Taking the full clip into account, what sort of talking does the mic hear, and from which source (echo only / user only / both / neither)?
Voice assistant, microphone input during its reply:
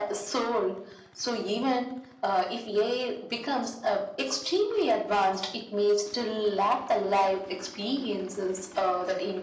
echo only